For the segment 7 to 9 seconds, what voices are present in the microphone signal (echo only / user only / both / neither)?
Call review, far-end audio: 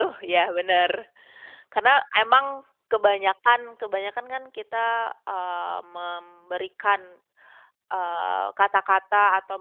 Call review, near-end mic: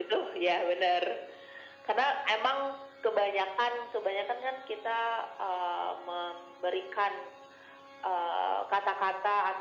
echo only